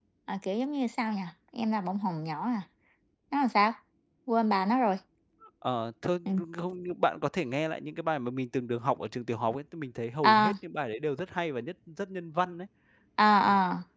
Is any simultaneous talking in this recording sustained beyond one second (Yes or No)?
No